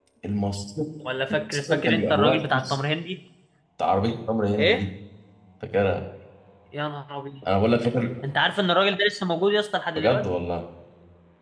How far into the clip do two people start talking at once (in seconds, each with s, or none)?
1.3 s